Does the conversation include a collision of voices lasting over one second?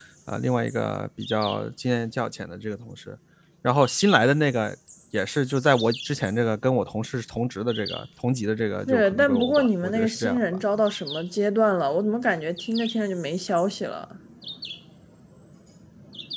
Yes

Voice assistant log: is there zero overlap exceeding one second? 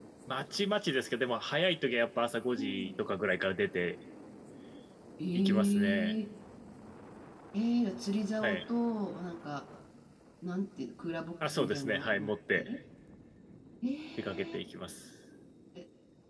No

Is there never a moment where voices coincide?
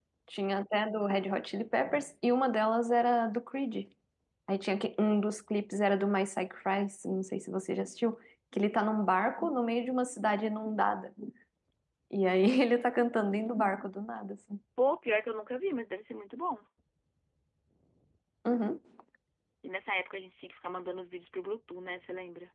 Yes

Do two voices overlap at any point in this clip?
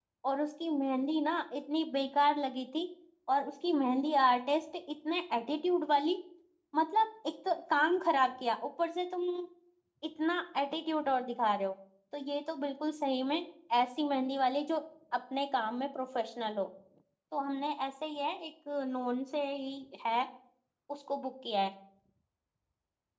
No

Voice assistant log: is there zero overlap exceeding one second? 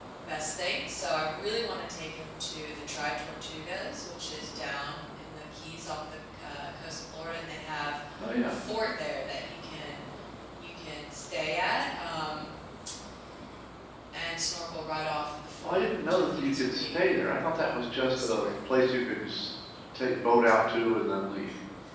No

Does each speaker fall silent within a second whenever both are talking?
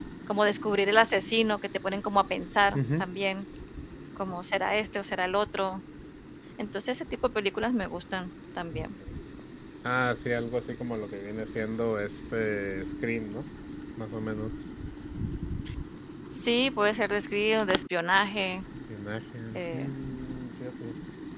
Yes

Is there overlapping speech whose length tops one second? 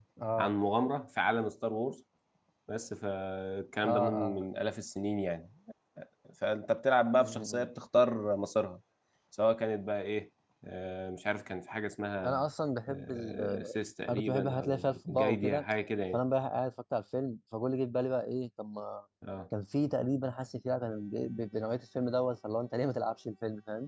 Yes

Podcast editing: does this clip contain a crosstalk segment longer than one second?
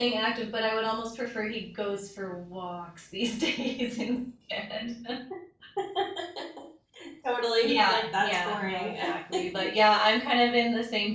Yes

